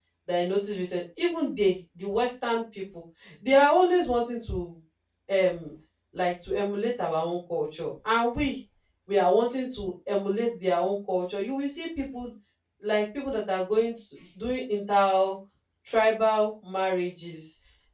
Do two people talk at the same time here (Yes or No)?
No